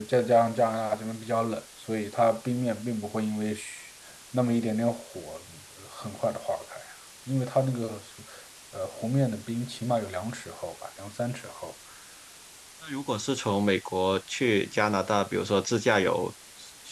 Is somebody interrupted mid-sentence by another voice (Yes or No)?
No